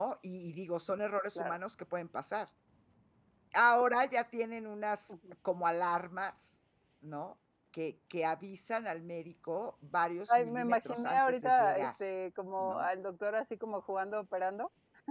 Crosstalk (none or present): present